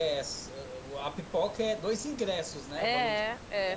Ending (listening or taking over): taking over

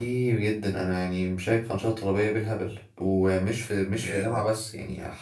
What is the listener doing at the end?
listening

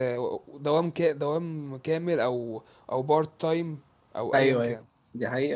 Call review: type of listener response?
taking over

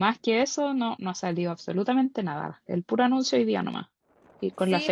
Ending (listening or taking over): taking over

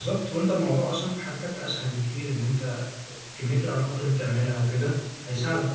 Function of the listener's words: taking over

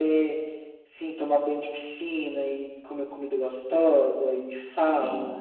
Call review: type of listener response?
listening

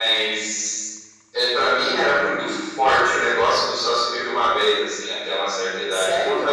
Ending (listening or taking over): listening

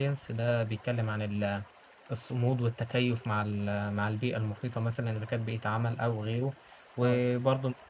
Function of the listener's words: listening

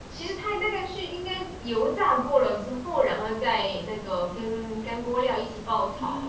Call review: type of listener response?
taking over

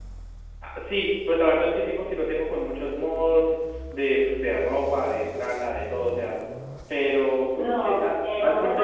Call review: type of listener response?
taking over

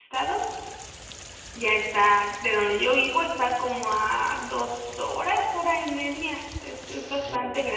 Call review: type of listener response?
taking over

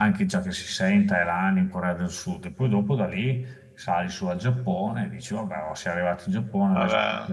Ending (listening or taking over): listening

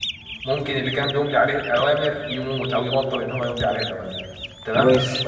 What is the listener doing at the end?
listening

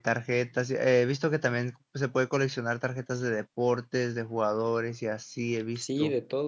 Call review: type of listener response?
taking over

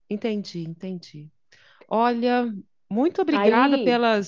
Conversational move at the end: listening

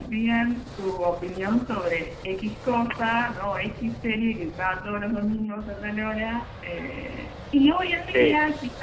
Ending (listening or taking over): listening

